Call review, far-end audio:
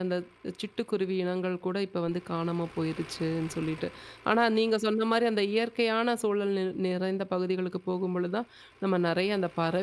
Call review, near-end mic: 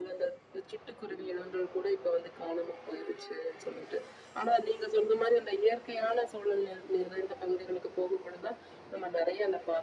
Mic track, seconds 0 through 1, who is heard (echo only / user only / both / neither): echo only